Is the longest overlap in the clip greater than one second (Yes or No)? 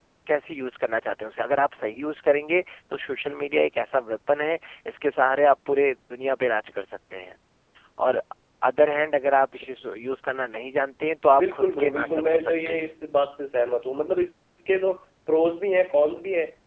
Yes